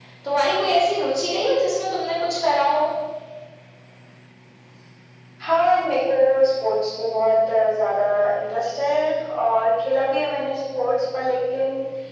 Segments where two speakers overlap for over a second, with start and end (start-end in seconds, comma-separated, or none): none